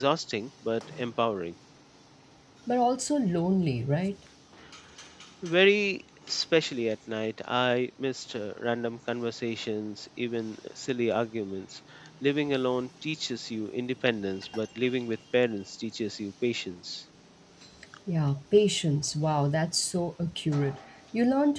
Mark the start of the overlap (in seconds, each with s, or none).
none